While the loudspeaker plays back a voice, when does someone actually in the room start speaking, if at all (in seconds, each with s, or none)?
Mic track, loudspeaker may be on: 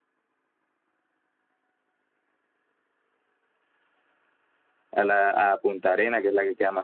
4.9 s